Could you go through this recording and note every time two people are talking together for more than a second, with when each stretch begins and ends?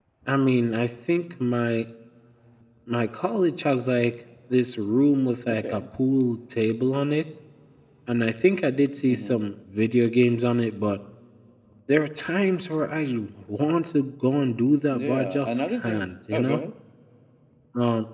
14.9-16.6

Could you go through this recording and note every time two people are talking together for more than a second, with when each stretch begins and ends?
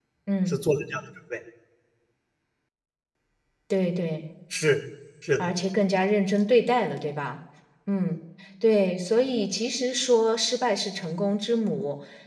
none

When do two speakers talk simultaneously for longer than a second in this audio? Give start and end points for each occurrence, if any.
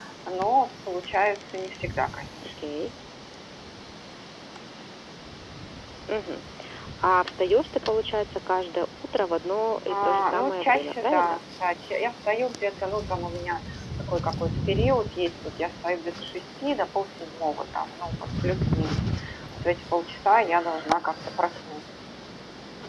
9.9-11.4

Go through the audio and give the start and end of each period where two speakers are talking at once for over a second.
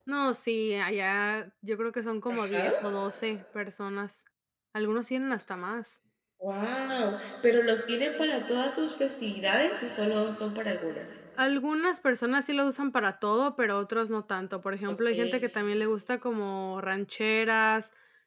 none

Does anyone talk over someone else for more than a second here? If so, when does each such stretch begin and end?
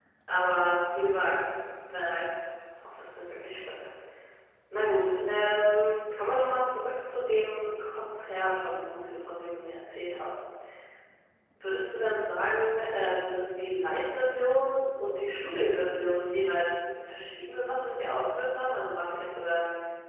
none

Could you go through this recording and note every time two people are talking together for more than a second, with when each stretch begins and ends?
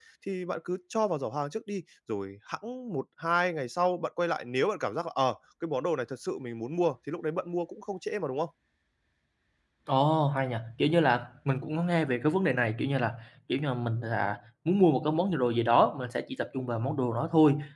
none

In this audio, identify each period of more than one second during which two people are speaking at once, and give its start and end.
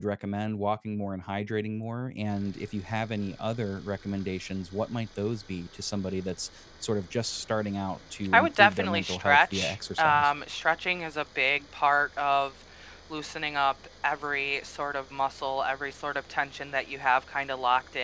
8.3-10.3

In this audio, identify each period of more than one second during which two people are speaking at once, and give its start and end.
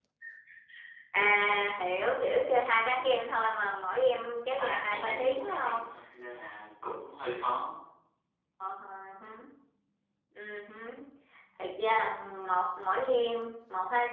4.5-5.8

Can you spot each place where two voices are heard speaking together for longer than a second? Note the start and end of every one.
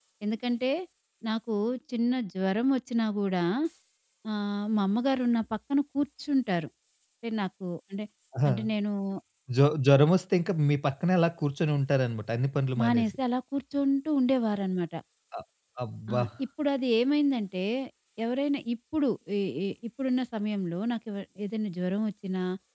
none

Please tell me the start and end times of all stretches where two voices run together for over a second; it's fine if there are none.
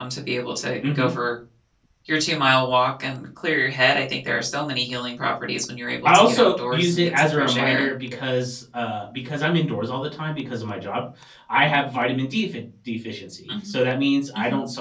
6.0-7.9

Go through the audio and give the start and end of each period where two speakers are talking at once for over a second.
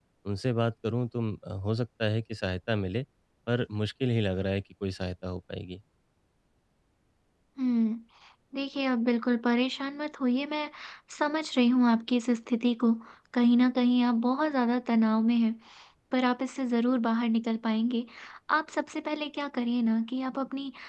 none

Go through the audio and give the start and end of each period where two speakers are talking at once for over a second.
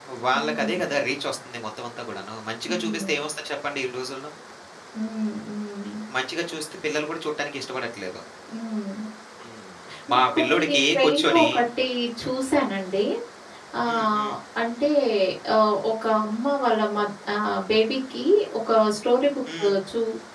10.1-11.4

